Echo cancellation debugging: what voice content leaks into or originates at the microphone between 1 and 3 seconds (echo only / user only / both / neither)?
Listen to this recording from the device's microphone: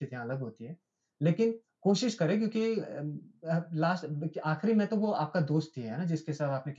user only